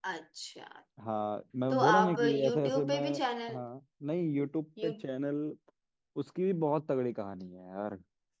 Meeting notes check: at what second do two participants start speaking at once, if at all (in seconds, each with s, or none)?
1.7 s